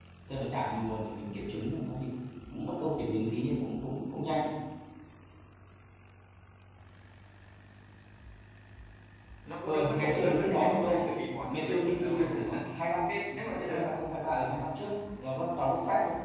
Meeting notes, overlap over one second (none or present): present